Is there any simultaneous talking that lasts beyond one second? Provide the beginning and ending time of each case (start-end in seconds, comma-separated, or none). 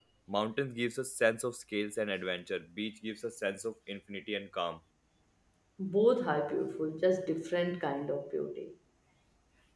none